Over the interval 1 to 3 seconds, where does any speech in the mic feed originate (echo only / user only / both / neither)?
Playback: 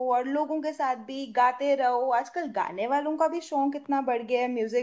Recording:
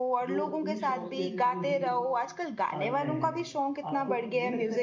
both